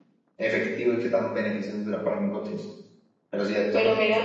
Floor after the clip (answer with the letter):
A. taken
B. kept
B